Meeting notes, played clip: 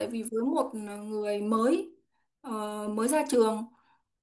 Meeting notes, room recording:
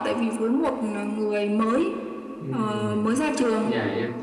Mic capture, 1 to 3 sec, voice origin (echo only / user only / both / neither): both